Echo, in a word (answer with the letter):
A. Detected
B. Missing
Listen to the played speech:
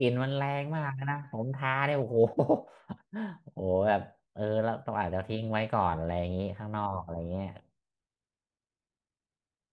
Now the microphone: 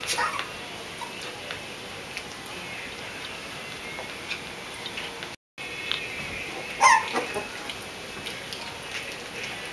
B